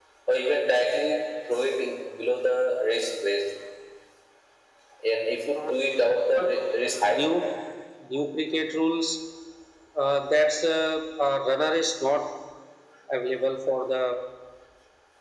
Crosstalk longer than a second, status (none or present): none